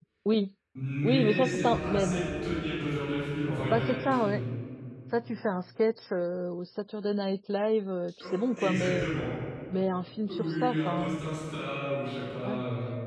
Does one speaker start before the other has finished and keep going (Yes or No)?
Yes